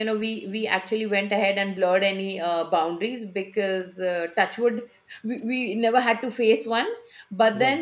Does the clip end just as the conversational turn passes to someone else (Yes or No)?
No